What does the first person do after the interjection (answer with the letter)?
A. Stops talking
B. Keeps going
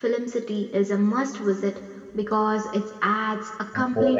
B